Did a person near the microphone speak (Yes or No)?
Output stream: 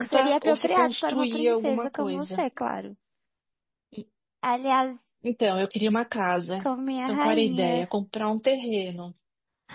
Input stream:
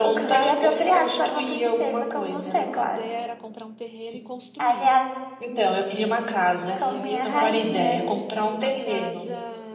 Yes